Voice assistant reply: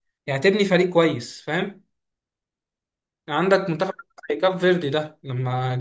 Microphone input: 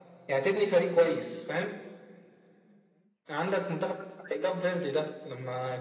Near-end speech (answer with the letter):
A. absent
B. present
A